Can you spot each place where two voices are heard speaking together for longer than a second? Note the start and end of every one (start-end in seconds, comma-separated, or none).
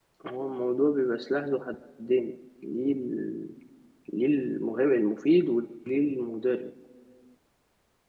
none